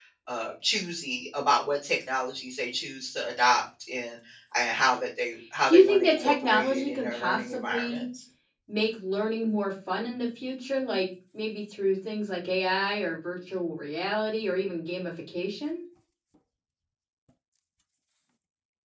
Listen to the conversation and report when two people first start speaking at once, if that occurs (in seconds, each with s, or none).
5.7 s